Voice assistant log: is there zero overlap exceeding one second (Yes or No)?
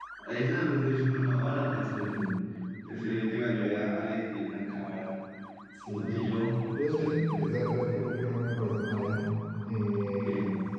Yes